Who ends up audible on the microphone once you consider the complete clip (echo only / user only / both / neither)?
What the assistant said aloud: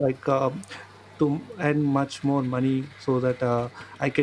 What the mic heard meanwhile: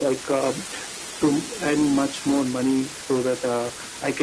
echo only